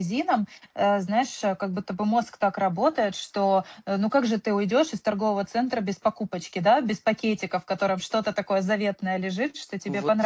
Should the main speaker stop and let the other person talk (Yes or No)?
No